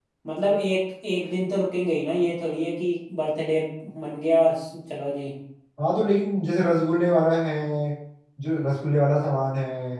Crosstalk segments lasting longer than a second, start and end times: none

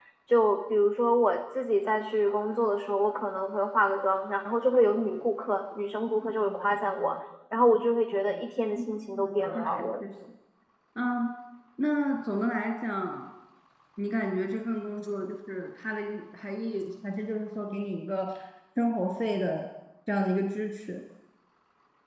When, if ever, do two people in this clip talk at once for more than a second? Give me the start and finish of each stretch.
8.8-10.0

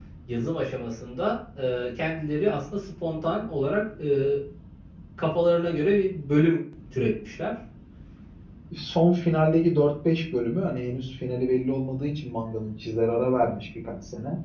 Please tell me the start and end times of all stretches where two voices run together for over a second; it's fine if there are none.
none

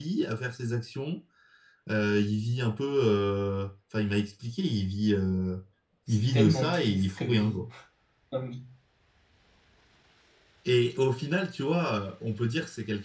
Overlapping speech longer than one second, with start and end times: 6.1-7.6

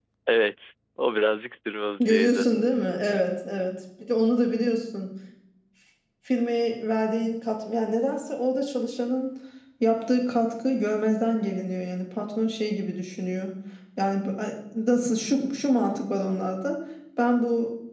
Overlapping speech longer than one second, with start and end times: none

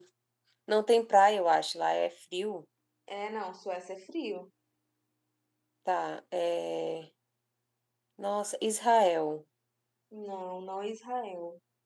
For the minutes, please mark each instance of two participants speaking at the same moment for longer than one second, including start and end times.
none

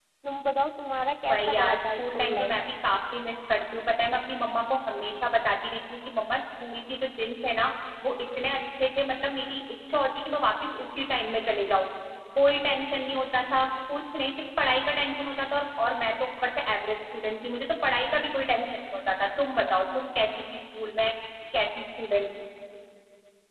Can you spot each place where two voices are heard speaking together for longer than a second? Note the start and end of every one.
1.3-2.5

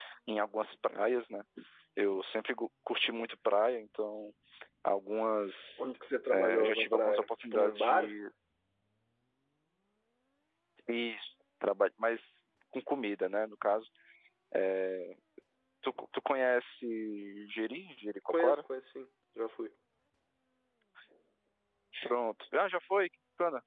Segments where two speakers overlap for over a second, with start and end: 6.3-8.1

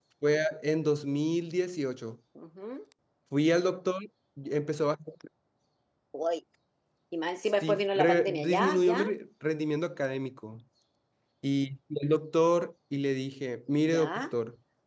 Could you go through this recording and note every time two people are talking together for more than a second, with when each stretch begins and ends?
7.6-9.1

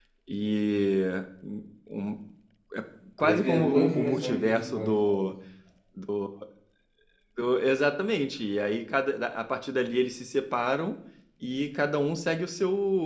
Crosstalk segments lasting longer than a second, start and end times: 3.2-5.3

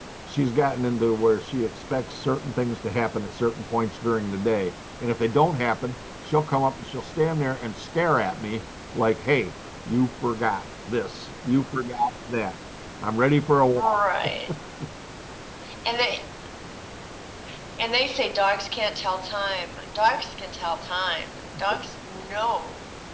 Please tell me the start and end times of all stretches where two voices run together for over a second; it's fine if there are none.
none

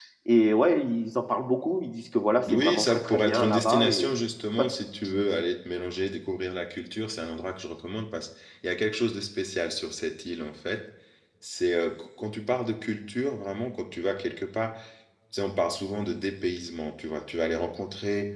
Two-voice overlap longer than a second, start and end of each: 2.5-4.1

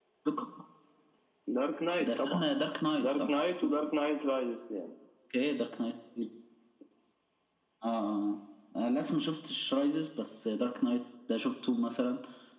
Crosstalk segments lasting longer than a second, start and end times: none

